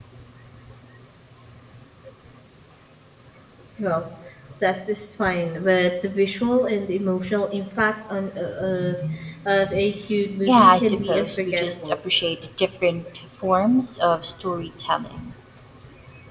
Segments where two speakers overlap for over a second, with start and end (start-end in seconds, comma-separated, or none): 10.5-11.9